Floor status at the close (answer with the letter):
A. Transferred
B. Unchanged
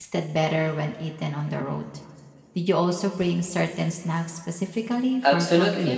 A